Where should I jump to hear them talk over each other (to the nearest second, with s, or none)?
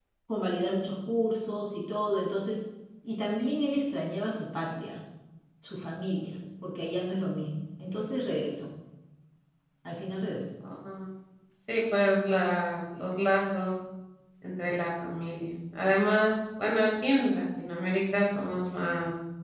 none